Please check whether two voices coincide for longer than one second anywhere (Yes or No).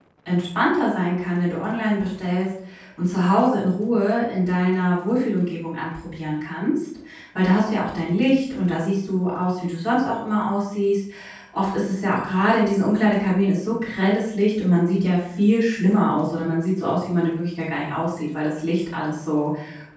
No